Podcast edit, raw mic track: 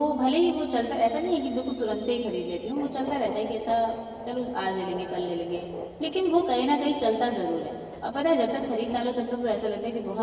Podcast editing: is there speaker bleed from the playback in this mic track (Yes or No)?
Yes